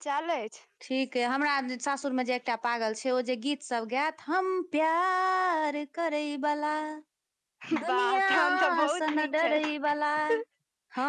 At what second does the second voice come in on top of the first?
8 s

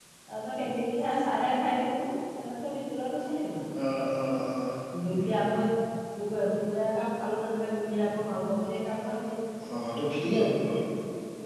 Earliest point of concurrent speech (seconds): none

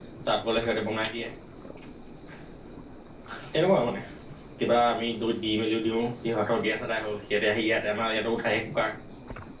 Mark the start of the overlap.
none

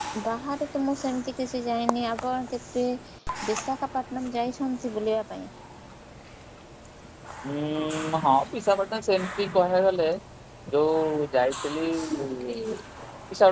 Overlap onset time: none

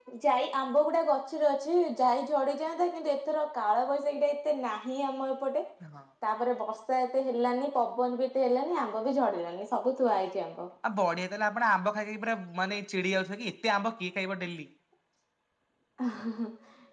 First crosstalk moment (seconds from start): none

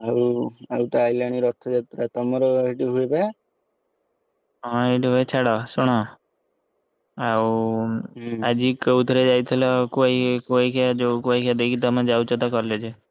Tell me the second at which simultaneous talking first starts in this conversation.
none

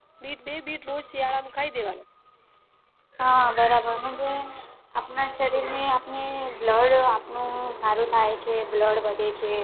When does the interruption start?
none

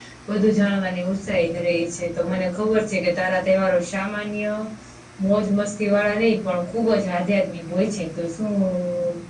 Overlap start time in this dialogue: none

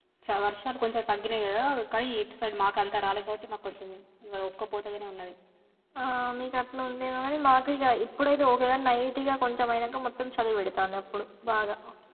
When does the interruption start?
none

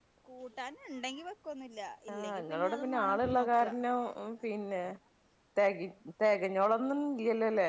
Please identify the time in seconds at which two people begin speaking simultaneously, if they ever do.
2 s

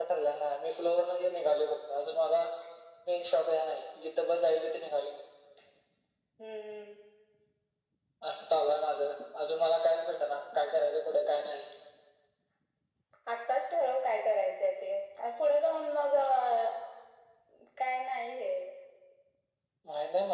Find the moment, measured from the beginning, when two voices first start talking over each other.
none

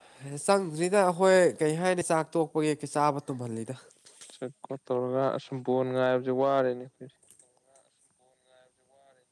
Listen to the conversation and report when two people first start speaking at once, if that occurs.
none

